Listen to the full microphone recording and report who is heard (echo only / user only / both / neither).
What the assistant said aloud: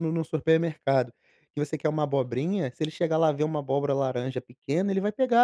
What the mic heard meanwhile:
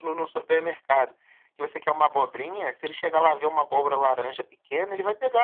echo only